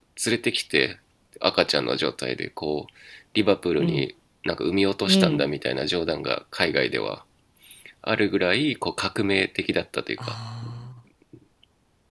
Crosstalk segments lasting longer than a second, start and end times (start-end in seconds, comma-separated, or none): none